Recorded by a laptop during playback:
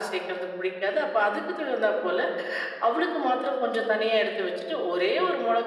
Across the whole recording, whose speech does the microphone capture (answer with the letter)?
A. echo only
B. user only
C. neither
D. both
A